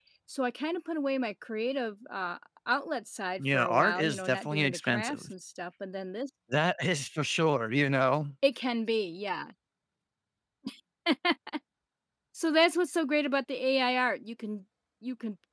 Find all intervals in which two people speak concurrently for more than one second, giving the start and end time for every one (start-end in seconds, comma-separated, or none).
3.4-5.3